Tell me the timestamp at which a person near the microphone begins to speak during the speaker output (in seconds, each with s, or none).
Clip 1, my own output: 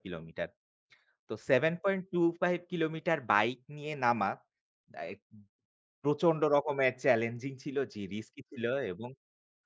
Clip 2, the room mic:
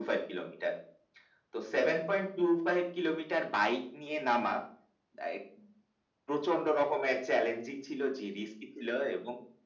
none